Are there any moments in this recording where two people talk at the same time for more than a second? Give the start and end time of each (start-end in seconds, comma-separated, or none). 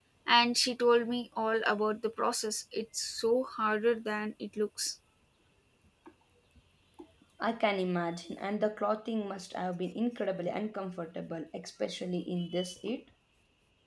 none